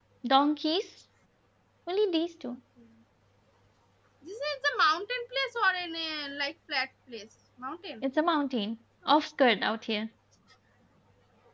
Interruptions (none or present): none